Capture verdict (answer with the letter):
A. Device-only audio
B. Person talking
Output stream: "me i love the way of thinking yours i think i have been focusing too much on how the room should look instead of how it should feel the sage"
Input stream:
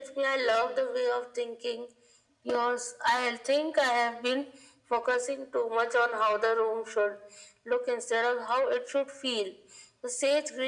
A